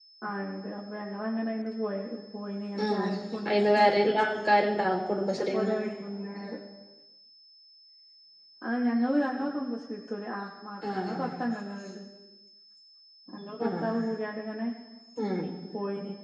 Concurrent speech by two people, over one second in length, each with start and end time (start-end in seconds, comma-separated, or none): none